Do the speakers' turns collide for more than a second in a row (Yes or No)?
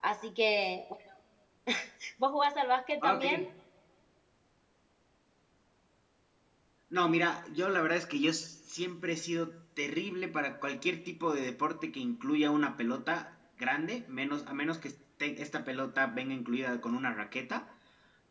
No